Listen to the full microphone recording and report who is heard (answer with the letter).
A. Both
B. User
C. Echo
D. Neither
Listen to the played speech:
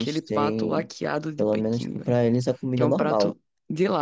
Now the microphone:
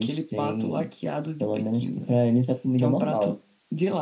C